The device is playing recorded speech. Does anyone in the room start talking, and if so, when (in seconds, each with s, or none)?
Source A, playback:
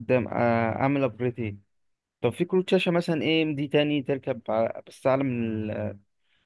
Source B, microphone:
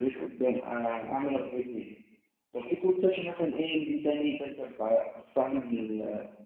none